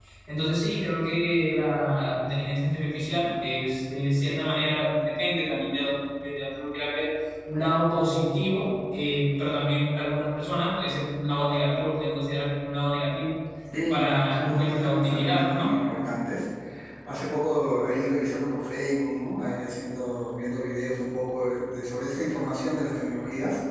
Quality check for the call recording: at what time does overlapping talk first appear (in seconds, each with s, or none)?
13.9 s